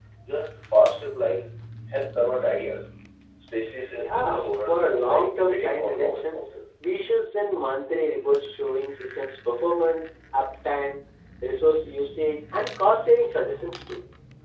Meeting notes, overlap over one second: present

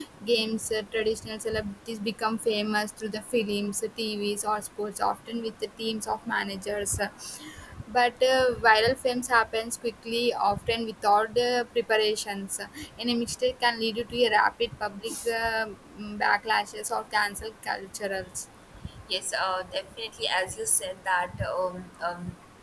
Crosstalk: none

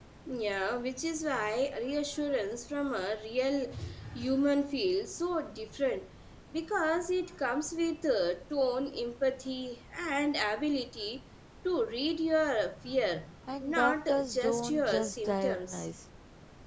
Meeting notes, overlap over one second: present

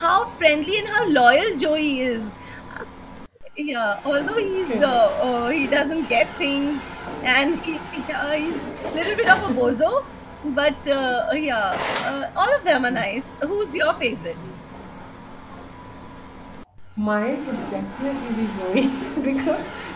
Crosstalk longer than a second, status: none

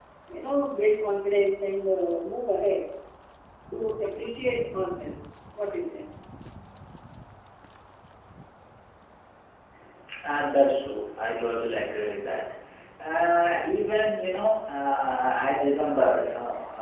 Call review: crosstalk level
none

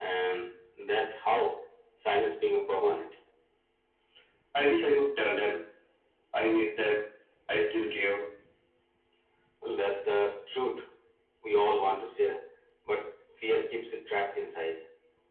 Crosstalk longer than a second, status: none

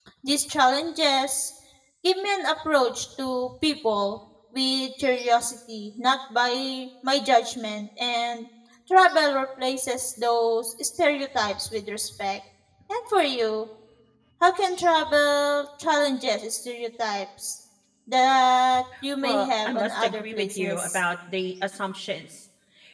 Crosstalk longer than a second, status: present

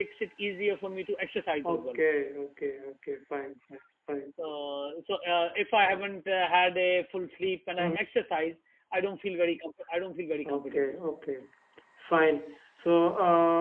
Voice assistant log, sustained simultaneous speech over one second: none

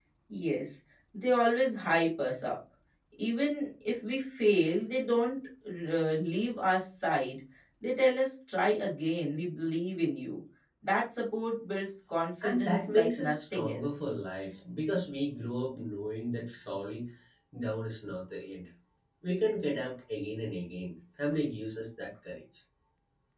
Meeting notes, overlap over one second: present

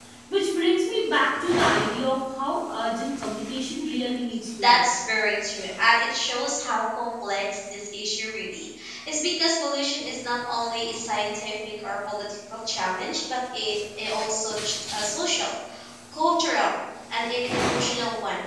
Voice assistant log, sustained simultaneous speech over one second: none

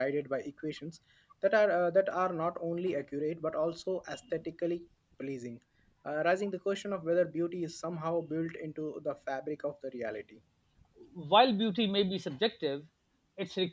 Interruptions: none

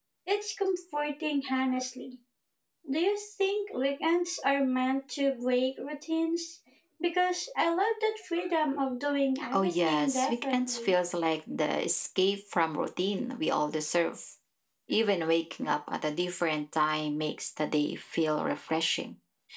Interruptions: present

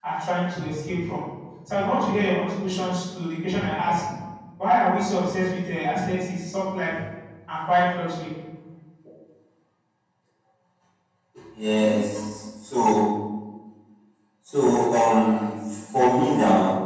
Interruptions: none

